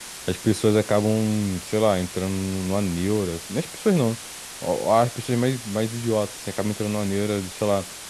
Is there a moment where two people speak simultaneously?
No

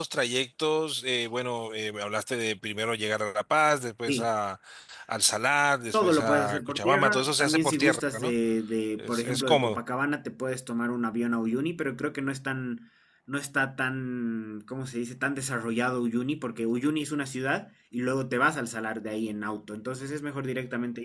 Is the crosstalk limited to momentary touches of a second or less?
No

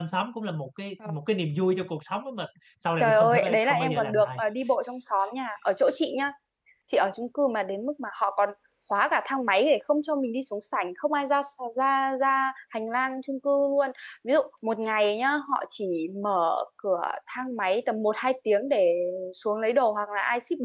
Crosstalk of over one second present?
Yes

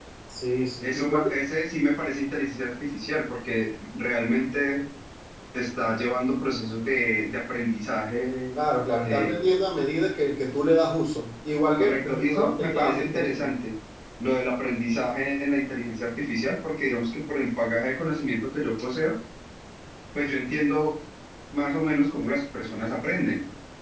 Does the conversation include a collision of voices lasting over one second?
Yes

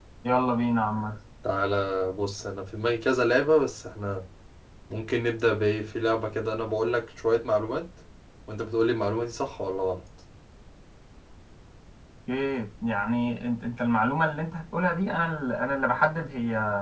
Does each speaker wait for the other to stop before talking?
Yes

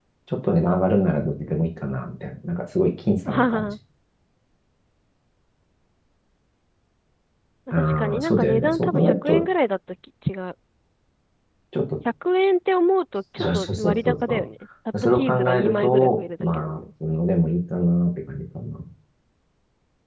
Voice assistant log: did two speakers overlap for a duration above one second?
Yes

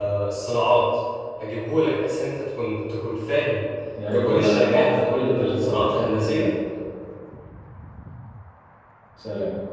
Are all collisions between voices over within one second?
No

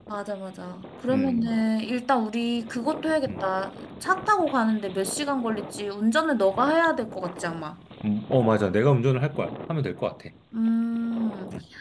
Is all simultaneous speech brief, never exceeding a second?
Yes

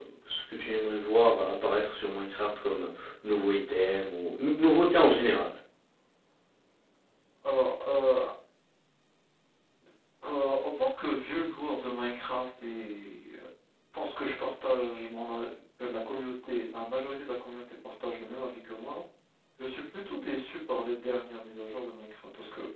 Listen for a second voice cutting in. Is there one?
No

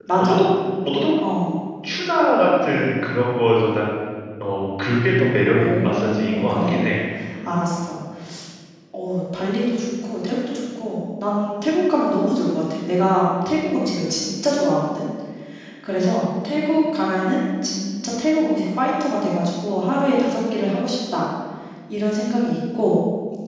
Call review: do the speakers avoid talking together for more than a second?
No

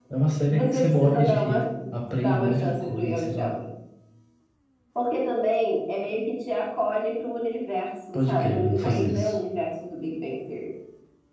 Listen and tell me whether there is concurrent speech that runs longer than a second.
Yes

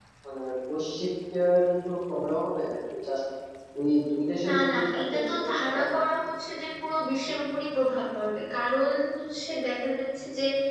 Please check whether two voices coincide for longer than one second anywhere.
Yes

